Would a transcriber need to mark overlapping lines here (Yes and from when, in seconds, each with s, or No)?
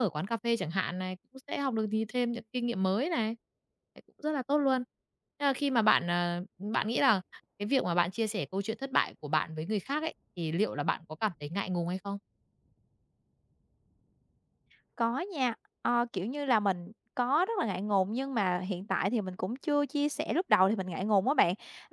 No